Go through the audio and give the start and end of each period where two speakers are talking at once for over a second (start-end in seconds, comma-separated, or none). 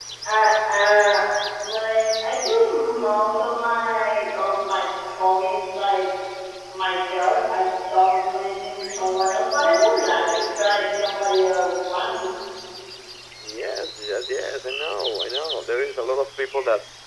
none